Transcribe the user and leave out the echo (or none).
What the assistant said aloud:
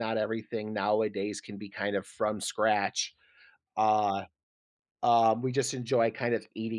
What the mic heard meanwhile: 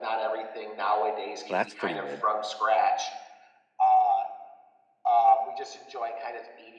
That's pretty good.